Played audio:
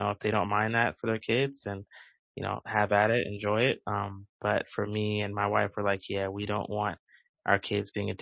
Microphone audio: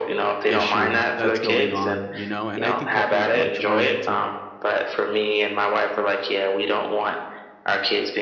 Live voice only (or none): issue that's going on, you know, and I think companies are, like, trying to